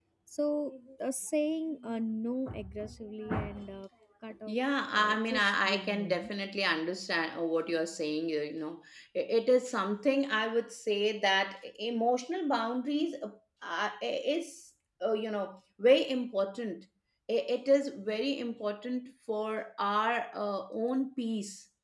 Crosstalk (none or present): present